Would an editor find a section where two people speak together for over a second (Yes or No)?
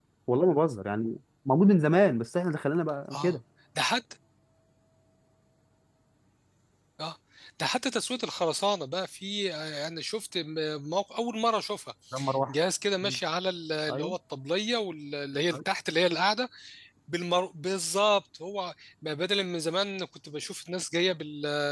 No